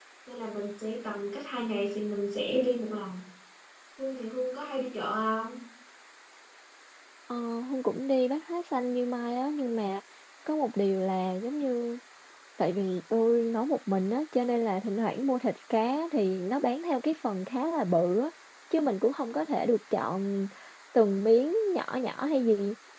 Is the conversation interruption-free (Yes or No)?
Yes